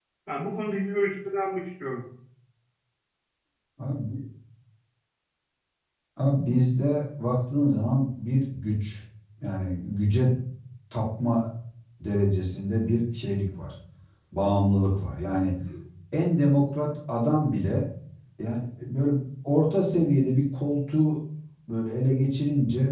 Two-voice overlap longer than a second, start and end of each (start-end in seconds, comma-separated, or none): none